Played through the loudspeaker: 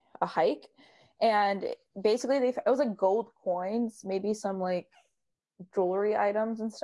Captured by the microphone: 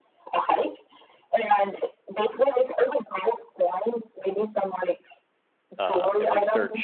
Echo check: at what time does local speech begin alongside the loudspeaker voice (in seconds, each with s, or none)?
5.8 s